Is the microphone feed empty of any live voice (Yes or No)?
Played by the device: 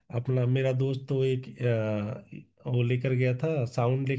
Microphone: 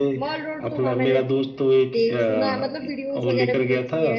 No